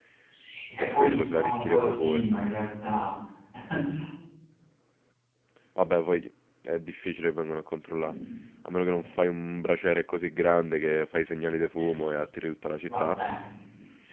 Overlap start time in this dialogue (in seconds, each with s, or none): 0.8 s